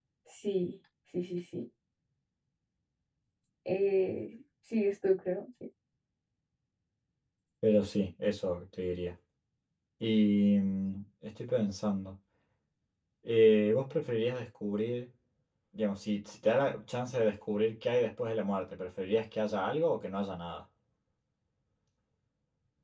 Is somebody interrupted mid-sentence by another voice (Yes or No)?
No